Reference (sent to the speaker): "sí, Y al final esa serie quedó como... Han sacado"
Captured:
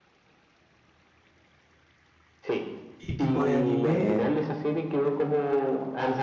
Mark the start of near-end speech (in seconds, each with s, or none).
3.0 s